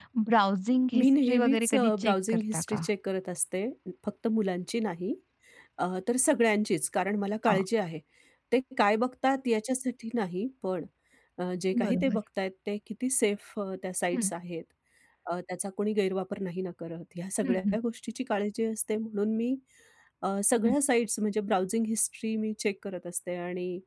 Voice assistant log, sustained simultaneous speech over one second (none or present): present